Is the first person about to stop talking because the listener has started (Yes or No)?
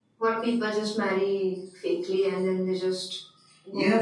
Yes